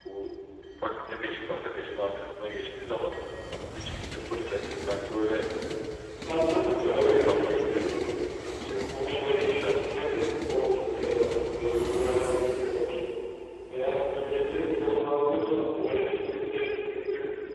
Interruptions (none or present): present